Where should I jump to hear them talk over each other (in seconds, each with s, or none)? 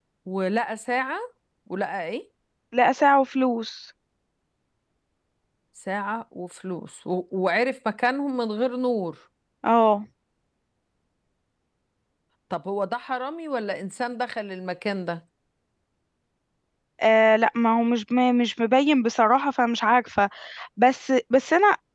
none